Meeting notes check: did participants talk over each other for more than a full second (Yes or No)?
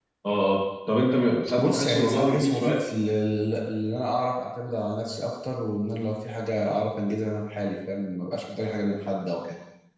Yes